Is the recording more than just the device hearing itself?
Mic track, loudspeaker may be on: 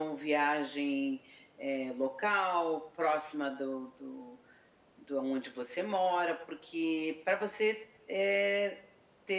No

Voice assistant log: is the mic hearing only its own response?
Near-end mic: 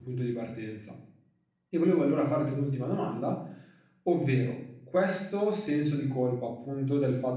No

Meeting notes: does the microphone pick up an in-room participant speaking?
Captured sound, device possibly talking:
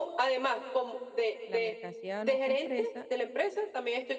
Yes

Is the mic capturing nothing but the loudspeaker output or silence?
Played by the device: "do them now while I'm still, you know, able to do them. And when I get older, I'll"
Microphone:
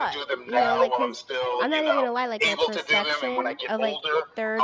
No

